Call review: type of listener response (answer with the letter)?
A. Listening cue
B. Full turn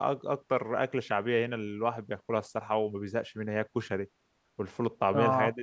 A